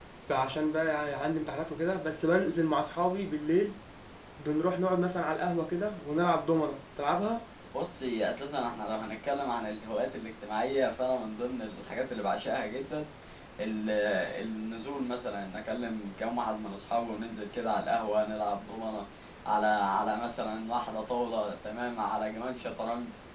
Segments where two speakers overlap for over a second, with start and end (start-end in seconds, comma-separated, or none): none